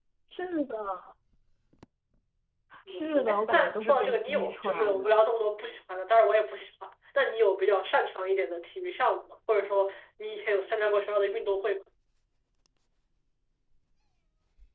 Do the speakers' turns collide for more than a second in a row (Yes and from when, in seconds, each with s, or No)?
Yes, from 2.9 s